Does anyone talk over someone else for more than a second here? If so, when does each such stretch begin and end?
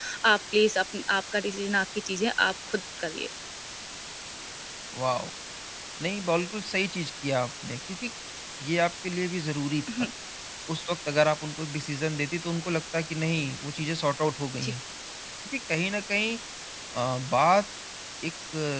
none

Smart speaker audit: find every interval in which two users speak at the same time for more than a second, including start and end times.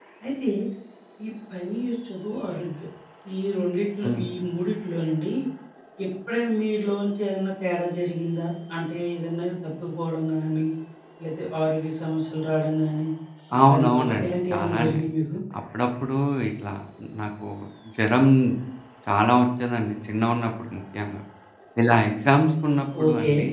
13.7-15.0

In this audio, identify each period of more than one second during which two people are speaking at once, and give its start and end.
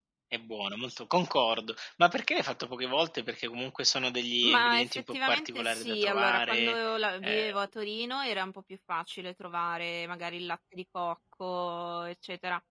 4.4-6.8

